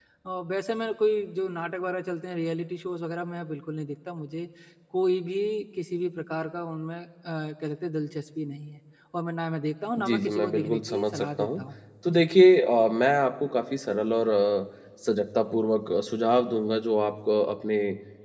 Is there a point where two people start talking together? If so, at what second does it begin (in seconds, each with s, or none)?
10.0 s